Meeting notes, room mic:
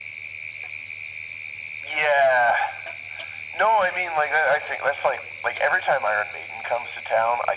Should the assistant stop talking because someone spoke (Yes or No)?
No